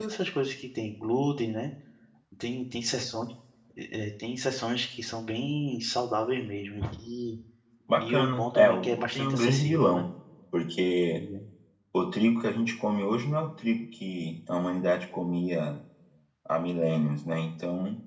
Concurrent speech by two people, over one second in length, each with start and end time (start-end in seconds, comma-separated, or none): 8.0-10.0